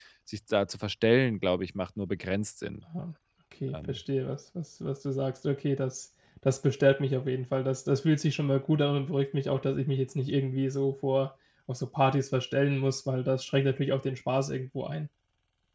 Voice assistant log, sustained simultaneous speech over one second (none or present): none